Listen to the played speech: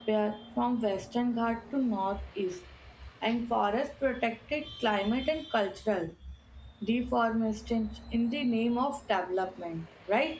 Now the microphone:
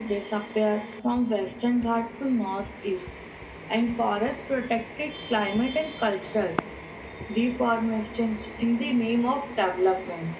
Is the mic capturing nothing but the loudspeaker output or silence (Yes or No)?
Yes